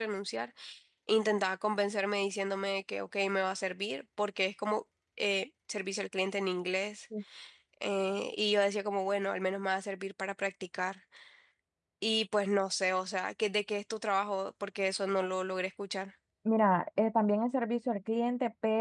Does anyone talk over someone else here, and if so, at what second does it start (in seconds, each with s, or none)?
none